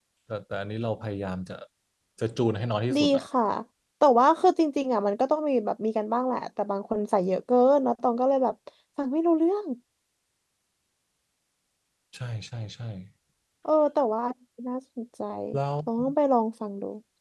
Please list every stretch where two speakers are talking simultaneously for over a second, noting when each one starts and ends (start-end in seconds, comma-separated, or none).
none